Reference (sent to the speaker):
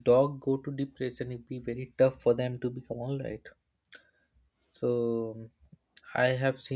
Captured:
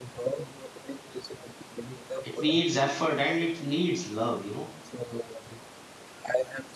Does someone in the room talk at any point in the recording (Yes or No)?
Yes